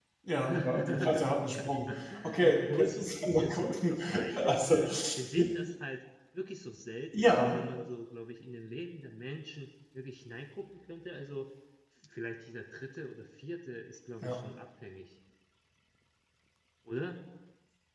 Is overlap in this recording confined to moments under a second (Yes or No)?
No